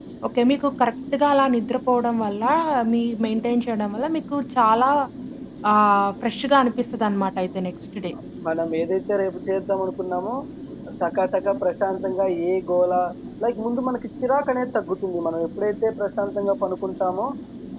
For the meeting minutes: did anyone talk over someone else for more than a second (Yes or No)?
No